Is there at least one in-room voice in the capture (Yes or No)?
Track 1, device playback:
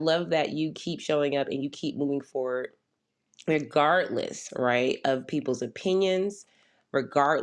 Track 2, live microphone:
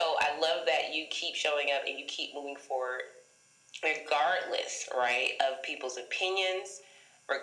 No